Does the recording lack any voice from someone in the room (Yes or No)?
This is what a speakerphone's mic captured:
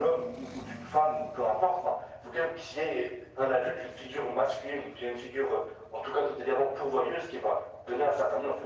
Yes